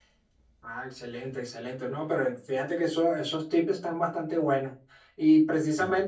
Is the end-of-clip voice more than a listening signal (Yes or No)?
No